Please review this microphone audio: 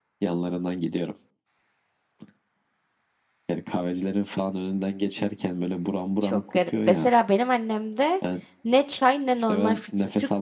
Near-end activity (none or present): present